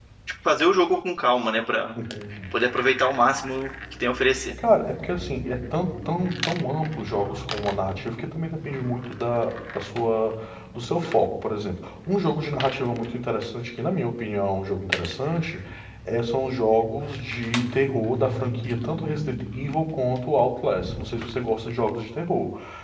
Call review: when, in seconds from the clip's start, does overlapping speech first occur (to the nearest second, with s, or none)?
none